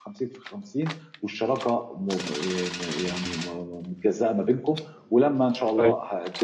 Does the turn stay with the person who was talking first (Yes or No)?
Yes